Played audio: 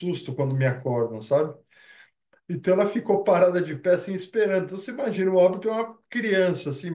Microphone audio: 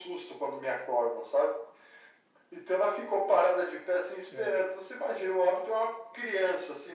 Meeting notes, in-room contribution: present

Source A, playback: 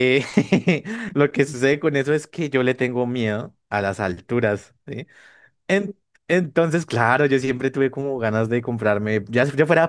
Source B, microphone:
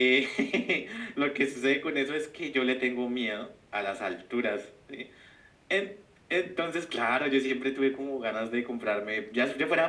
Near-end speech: none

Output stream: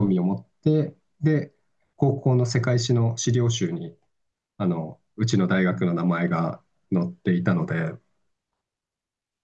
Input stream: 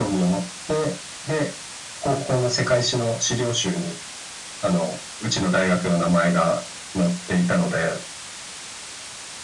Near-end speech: none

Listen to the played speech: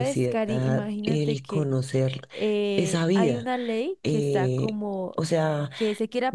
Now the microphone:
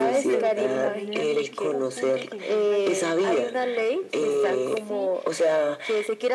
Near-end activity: present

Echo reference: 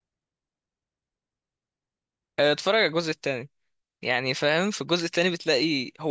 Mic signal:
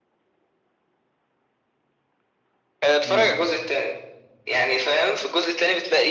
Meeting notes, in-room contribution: present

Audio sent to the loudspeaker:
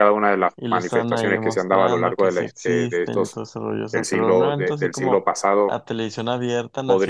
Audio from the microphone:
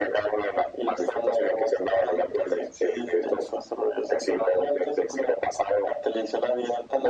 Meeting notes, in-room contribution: none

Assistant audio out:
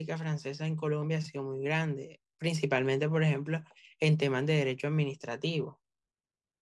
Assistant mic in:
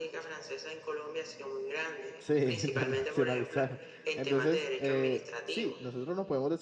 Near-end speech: present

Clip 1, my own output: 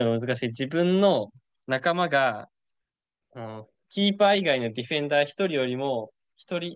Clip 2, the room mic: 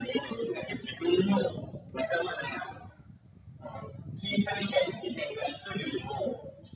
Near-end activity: none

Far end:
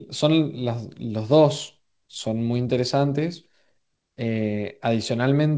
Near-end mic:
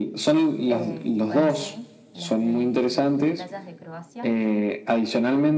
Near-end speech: present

